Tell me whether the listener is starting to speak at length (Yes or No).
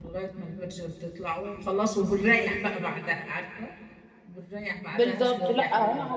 Yes